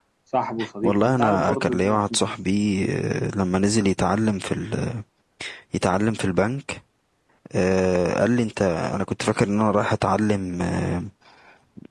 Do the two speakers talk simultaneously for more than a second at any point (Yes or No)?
Yes